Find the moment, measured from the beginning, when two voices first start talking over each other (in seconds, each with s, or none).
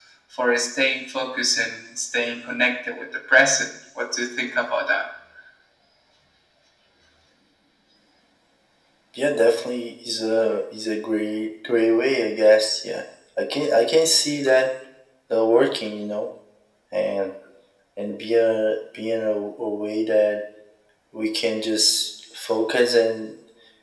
none